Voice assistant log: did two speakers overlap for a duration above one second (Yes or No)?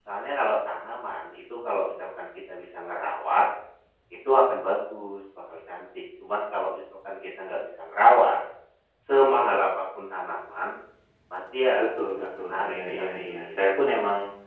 Yes